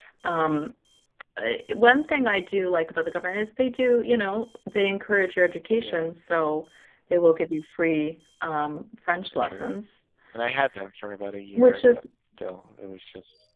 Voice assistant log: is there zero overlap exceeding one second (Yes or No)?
Yes